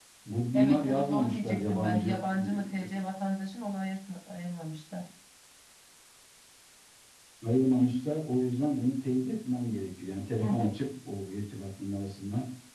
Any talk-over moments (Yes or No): Yes